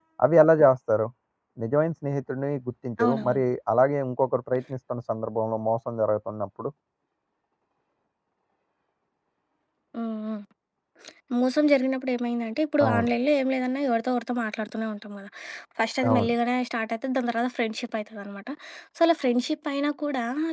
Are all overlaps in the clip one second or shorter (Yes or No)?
Yes